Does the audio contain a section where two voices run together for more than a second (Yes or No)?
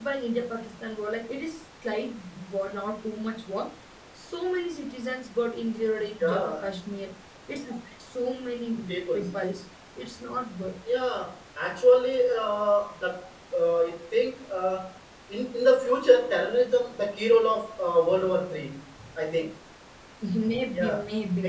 No